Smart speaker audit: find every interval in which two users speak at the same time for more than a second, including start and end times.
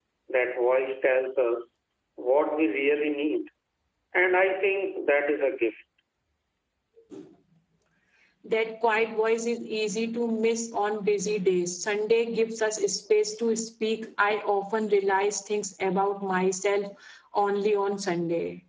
none

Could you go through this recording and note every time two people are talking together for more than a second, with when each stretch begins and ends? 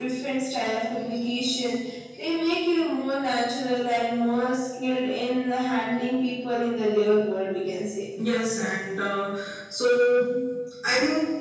none

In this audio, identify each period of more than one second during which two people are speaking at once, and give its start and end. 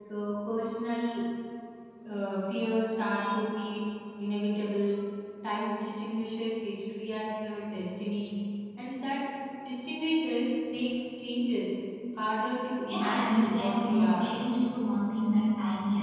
12.9-14.3

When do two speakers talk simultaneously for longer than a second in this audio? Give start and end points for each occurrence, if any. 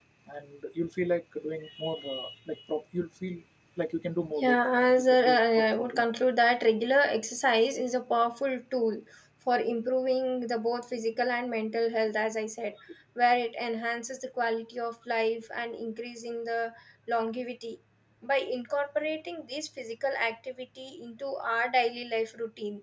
4.4-6.0

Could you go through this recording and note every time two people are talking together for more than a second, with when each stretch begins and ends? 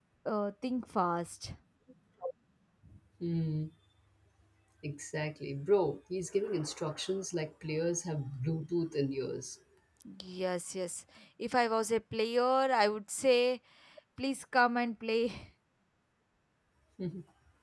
none

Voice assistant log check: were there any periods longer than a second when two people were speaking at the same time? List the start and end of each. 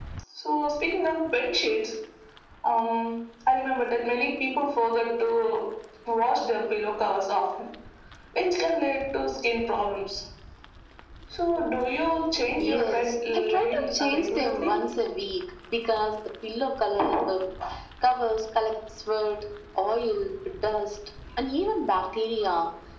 12.6-14.7

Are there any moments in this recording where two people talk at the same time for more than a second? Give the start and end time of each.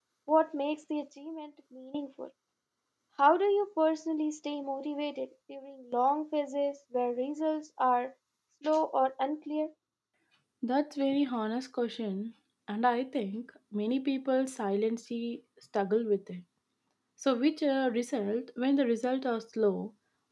none

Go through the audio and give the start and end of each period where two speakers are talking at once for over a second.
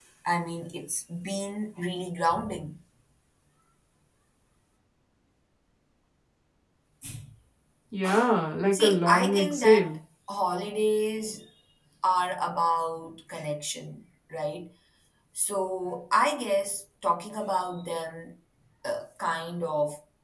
8.7-9.9

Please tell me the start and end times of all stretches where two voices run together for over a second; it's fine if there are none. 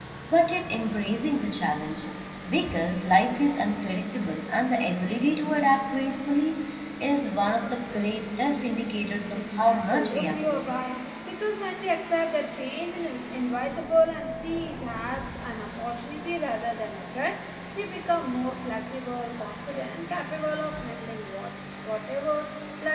9.3-10.8

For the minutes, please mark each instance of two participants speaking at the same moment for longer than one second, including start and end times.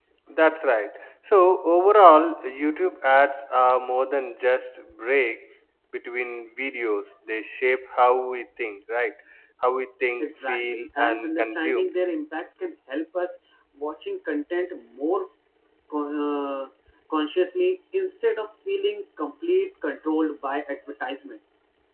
10.2-11.8

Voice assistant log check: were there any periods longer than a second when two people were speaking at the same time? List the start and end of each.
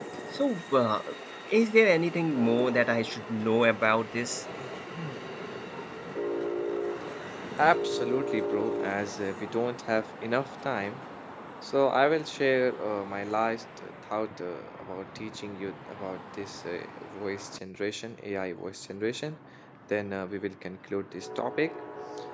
none

